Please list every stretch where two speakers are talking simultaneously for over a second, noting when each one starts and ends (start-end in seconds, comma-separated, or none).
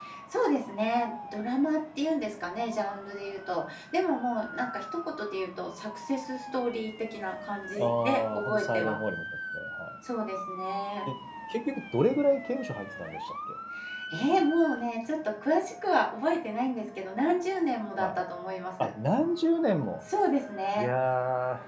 7.8-9.0